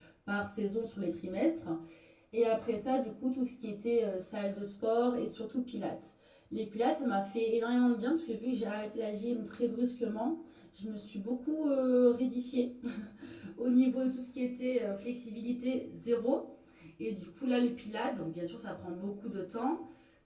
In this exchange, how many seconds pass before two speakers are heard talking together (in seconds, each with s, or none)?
none